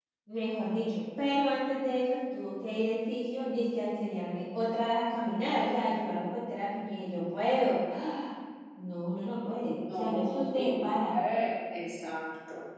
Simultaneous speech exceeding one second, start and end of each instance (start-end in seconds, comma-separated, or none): 9.9-11.1